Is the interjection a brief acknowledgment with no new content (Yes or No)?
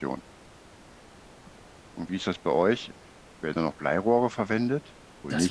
No